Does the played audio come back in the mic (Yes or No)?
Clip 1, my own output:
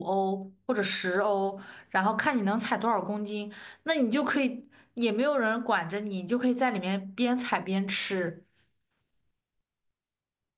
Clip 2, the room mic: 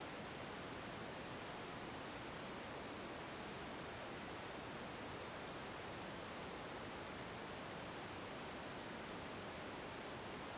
No